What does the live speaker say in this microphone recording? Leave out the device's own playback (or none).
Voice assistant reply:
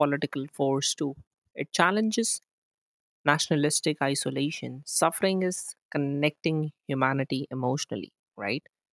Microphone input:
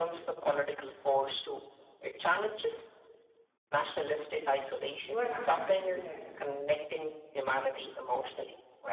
You are absolutely right.